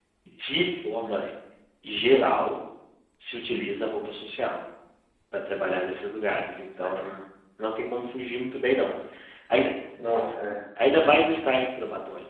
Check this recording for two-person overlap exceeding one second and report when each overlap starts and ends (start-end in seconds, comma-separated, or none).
none